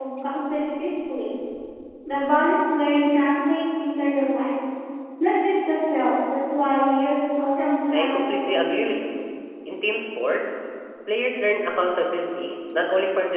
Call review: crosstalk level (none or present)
present